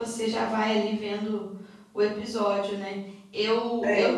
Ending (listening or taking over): listening